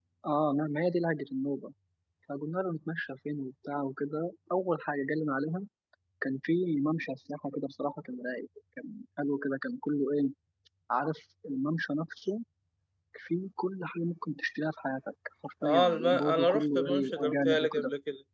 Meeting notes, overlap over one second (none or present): present